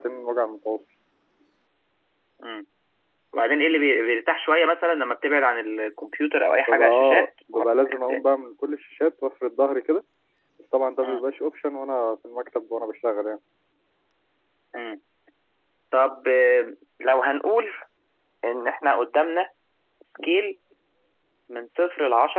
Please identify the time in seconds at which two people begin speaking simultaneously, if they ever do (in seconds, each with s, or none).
6.7 s